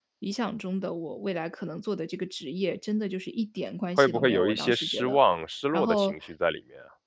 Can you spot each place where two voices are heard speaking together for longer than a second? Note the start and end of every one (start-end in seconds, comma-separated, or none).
4.0-5.2